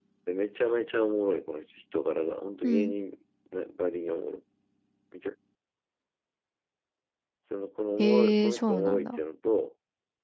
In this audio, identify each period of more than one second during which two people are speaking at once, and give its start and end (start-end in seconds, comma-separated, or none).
8.0-9.2